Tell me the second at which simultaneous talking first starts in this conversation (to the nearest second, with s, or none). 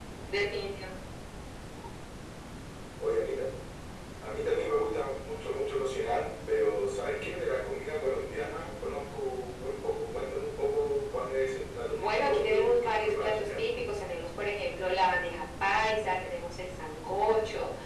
12 s